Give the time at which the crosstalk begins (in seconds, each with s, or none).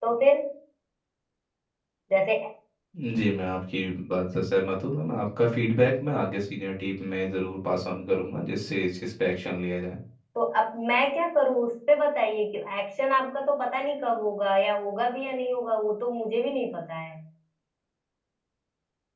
none